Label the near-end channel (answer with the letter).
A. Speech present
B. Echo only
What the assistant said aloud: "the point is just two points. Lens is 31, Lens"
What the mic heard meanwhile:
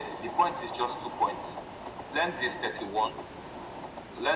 B